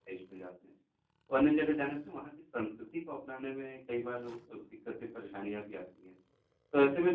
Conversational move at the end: listening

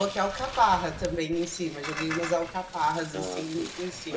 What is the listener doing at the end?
taking over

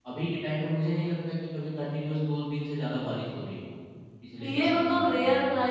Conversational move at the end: taking over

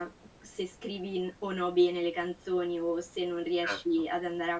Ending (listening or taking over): listening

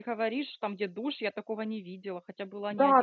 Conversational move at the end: taking over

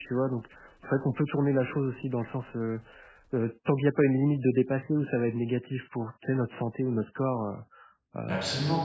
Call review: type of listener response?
taking over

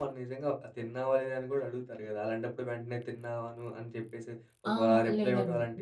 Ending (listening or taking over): taking over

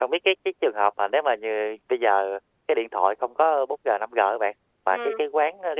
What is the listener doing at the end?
listening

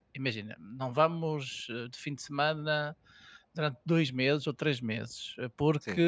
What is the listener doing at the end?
listening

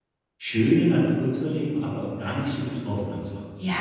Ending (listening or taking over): taking over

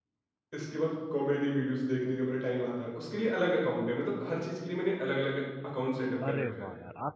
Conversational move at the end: taking over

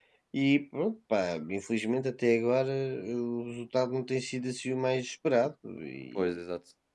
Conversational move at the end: taking over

